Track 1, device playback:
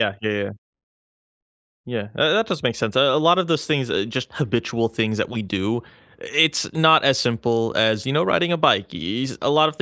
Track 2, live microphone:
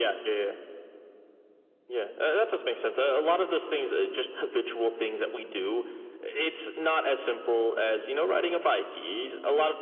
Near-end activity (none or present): none